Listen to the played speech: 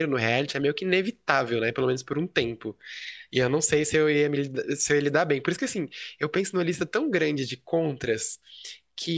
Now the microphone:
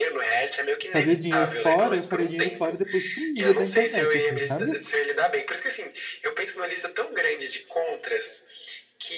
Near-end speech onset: 0.9 s

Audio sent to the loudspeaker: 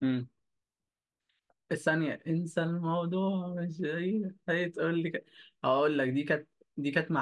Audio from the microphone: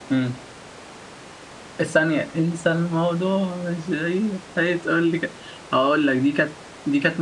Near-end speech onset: none

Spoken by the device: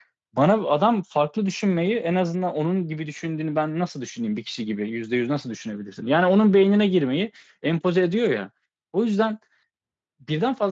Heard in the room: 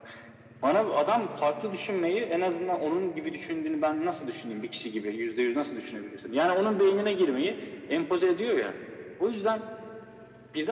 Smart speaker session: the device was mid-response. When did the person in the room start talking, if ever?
none

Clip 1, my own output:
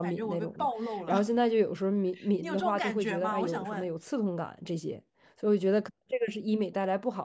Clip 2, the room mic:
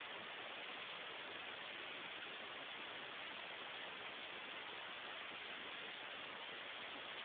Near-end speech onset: none

